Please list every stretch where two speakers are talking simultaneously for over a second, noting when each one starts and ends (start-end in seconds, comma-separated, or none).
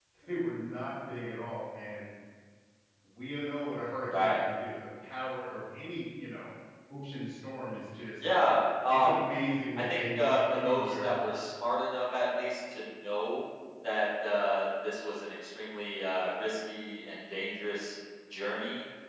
10.0-11.2